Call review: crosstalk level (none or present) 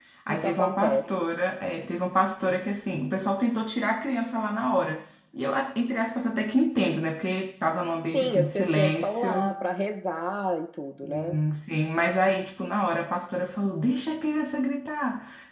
present